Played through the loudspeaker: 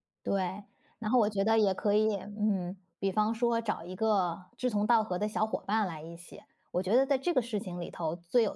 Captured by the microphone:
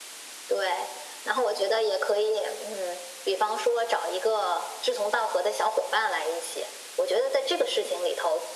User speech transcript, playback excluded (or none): none